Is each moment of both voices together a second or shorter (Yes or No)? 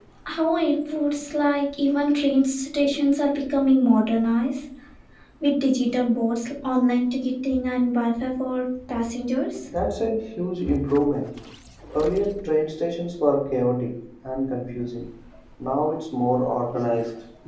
Yes